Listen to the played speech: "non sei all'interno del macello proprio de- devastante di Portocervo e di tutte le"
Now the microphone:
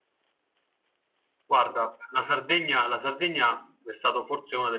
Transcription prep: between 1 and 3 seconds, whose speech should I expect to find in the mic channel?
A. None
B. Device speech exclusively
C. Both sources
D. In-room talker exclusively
D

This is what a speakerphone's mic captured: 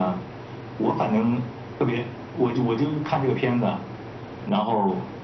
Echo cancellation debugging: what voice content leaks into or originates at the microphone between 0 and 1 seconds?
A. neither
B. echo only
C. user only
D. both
B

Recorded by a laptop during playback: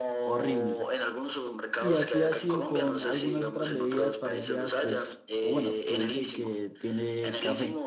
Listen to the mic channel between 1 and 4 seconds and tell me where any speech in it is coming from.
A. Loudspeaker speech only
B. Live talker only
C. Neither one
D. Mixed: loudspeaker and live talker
D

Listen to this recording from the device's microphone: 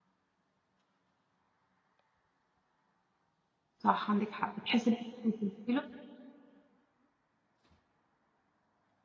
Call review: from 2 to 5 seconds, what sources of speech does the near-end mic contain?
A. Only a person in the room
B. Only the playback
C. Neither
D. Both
A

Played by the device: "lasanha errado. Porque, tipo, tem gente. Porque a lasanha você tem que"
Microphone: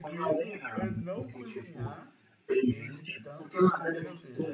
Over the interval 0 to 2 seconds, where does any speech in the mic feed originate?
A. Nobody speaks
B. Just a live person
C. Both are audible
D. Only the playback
C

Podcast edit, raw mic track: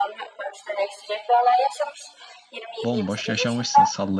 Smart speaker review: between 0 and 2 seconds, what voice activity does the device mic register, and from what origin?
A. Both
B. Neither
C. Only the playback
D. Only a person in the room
C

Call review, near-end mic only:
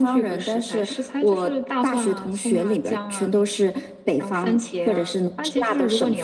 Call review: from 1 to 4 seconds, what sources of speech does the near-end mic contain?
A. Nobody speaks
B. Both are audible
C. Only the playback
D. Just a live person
C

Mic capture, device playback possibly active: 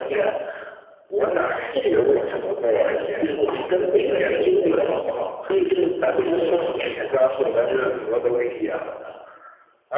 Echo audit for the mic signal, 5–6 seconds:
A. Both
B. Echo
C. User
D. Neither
B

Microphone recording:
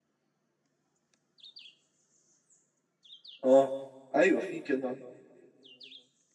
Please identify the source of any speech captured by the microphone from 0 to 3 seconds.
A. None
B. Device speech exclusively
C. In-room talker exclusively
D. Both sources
A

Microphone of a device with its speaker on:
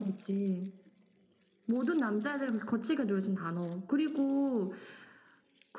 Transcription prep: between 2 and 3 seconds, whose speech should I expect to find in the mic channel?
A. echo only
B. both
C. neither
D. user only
A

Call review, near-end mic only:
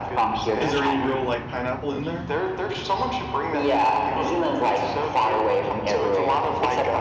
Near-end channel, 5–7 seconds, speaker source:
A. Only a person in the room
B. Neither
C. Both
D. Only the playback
D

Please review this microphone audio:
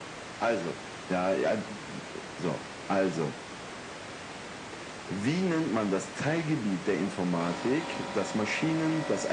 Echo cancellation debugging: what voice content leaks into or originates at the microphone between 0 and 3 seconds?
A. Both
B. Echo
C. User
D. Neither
B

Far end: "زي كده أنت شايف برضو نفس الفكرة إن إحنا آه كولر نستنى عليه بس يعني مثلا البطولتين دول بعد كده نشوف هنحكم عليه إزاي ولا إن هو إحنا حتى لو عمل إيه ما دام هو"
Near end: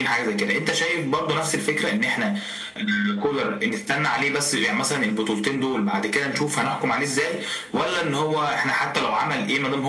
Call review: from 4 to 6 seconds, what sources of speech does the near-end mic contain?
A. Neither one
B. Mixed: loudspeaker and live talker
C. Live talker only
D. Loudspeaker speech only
D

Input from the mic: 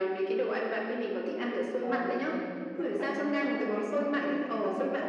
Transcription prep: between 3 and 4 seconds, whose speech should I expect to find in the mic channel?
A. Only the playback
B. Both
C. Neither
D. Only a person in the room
B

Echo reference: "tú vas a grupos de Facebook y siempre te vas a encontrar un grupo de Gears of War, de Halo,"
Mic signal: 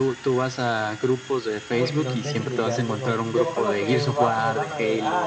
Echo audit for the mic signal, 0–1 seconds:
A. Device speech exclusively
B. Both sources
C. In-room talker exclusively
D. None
A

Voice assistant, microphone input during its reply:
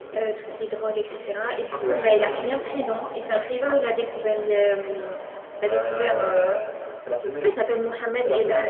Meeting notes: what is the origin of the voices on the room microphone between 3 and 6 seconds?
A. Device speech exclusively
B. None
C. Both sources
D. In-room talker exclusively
C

